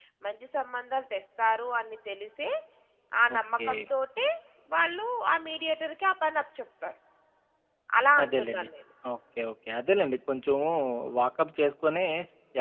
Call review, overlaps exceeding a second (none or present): none